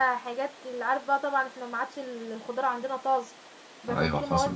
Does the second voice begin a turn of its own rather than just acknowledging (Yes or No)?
No